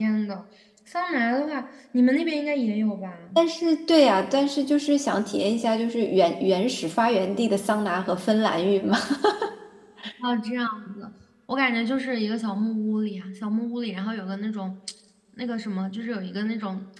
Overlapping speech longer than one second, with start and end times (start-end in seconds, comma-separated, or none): none